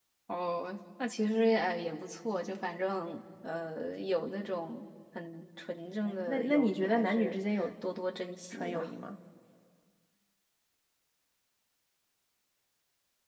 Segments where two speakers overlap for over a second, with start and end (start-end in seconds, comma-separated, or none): 6.0-7.4